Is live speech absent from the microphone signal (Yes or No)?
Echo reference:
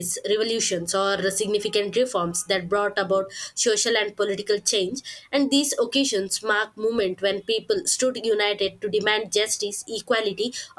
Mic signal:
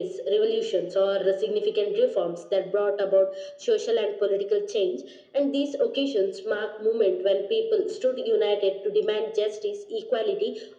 Yes